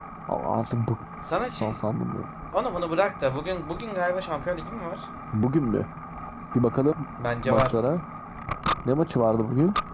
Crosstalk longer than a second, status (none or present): none